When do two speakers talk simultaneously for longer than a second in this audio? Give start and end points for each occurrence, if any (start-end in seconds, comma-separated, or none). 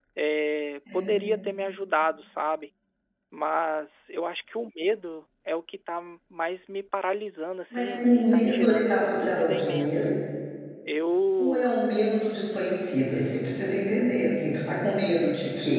7.7-10.1